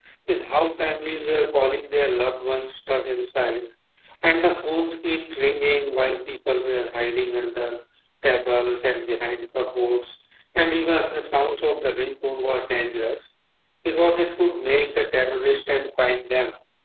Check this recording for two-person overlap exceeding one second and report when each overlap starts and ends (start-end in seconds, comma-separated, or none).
none